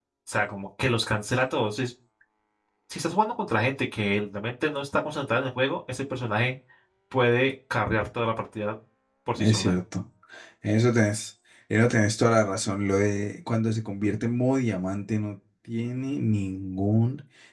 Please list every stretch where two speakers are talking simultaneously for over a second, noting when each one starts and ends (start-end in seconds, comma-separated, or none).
none